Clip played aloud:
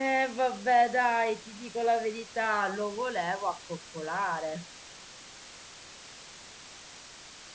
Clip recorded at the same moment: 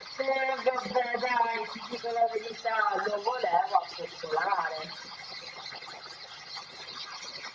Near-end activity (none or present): none